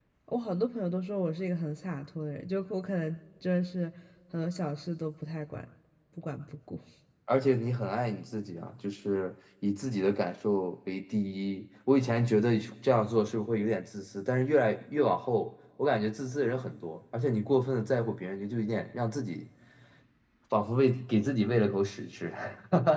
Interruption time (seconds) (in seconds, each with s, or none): none